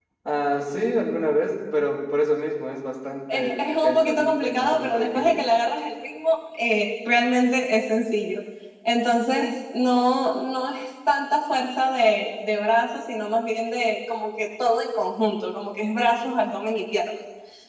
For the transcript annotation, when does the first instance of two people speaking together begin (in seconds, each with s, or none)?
3.3 s